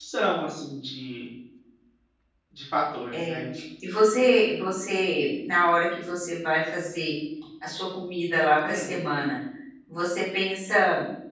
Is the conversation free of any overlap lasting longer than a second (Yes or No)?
Yes